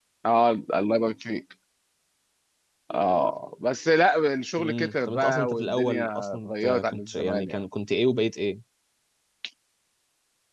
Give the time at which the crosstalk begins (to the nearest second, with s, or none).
5 s